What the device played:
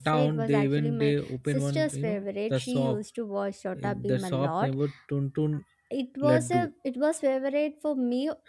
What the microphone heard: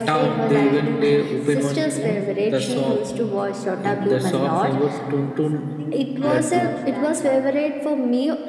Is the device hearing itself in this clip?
Yes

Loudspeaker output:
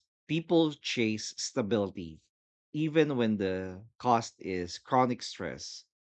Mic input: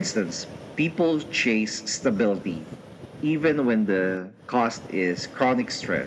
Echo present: Yes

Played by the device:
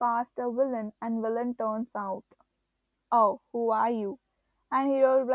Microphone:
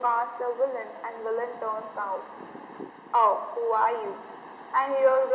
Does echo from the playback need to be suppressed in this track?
Yes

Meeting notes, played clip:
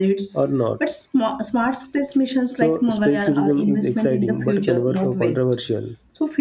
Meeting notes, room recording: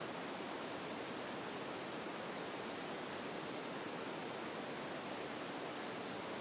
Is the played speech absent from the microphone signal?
Yes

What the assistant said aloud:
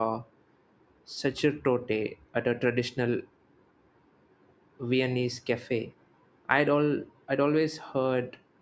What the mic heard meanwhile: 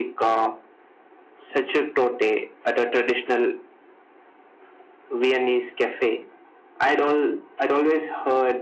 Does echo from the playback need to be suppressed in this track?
Yes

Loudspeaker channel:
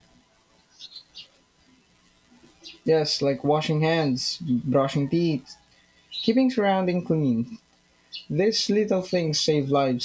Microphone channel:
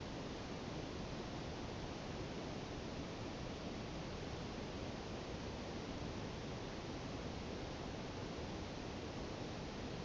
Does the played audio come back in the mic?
No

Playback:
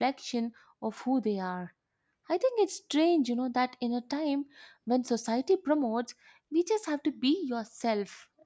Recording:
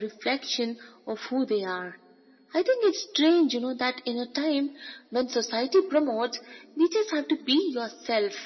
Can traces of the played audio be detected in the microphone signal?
Yes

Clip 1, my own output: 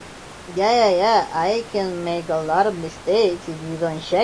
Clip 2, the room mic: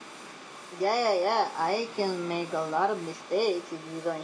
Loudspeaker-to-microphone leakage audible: Yes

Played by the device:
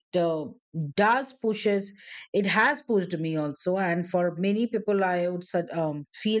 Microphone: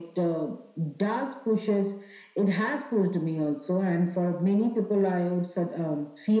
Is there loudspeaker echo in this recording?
Yes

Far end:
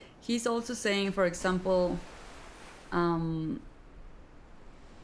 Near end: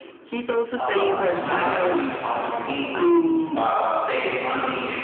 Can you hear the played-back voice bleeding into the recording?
Yes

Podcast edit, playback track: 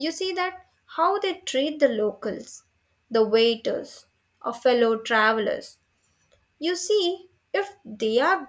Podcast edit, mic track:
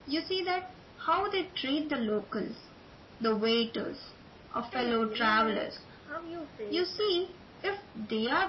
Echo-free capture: No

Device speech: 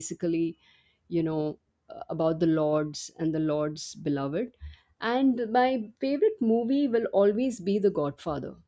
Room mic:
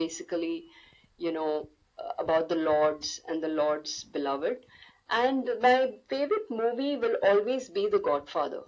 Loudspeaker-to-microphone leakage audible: Yes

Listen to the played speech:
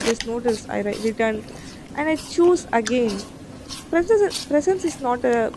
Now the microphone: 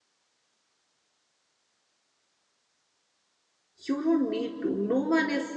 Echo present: No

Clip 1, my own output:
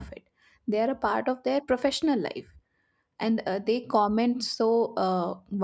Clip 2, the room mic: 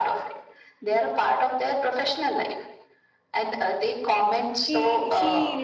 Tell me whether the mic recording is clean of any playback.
No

